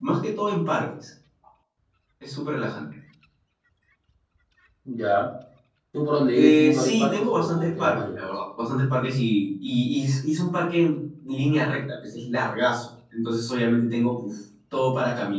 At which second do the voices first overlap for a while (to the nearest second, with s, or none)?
6 s